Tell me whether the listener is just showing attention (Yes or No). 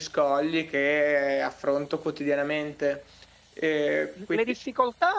No